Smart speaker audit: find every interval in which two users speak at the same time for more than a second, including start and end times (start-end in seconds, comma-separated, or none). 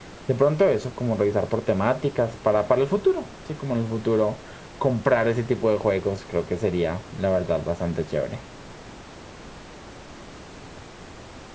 none